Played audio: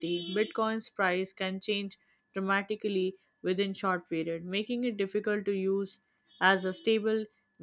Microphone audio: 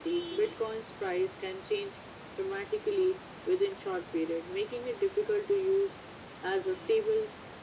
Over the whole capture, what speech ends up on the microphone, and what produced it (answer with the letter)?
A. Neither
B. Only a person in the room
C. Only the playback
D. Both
C